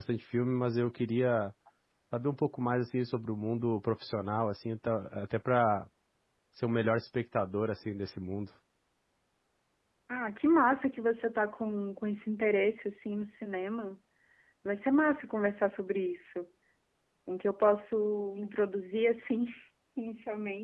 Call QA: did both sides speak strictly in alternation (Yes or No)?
Yes